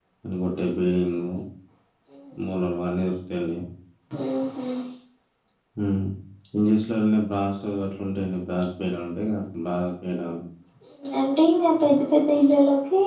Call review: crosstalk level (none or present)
none